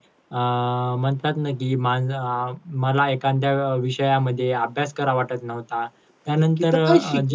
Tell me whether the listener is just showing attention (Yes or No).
No